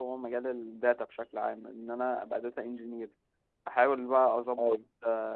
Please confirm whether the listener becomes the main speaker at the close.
No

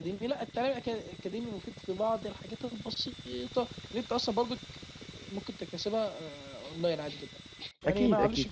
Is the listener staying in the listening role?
Yes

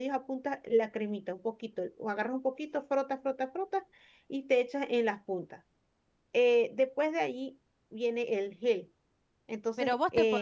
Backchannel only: No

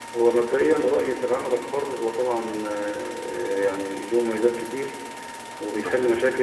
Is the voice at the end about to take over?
No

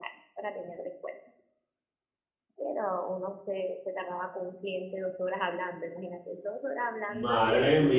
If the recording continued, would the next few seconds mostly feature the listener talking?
Yes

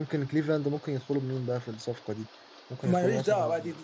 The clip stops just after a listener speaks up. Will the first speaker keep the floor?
No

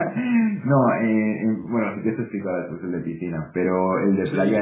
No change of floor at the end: Yes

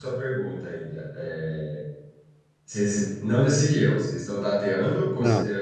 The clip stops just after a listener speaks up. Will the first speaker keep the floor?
Yes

